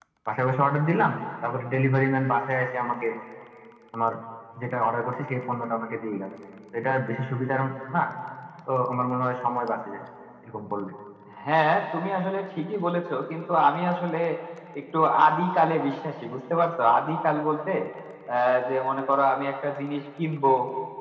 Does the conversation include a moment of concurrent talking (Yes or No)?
No